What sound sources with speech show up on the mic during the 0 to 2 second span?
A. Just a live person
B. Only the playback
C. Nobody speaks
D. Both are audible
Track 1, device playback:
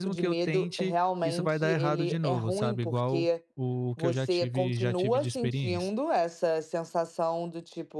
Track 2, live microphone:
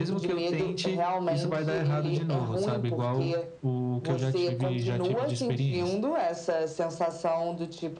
B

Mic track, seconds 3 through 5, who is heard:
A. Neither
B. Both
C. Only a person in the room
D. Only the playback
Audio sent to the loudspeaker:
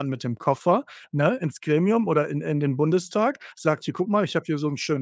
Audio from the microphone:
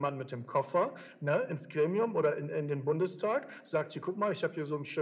D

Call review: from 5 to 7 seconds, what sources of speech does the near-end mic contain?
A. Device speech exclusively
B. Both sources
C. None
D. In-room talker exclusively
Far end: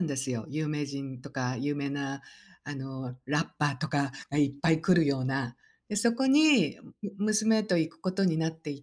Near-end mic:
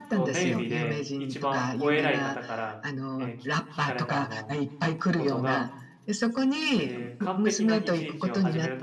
B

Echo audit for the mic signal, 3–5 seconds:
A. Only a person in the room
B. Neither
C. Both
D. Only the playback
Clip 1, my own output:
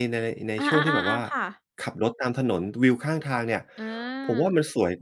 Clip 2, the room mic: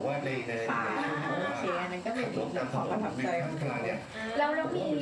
C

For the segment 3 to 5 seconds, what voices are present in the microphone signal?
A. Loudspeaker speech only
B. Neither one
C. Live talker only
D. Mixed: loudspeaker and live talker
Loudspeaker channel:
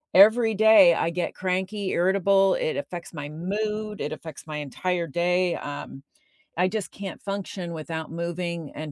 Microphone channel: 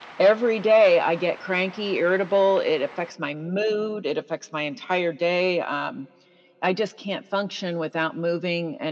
A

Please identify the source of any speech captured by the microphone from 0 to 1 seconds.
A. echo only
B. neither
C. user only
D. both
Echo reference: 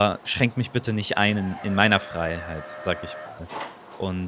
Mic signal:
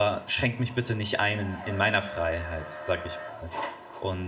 A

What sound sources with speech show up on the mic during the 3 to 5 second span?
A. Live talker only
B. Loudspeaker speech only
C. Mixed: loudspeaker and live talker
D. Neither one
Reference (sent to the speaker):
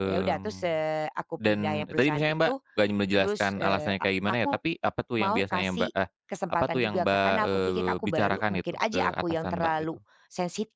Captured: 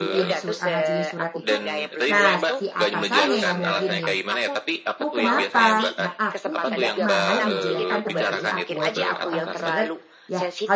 C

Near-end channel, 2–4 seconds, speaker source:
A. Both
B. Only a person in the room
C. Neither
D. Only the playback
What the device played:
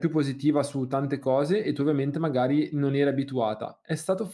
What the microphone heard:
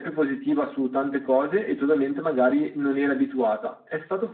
D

